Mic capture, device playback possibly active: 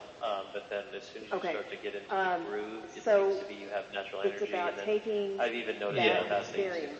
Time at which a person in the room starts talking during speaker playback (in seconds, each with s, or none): 5.9 s